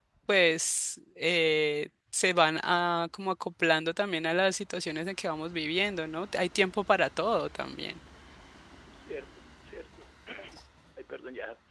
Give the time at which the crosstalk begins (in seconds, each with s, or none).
none